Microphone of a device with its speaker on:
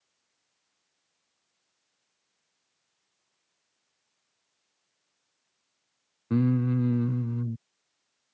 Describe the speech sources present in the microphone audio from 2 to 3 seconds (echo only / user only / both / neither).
neither